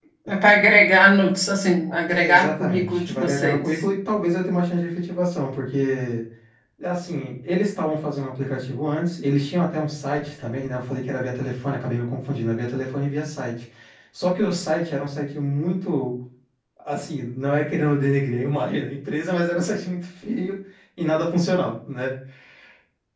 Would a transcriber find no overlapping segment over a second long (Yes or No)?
No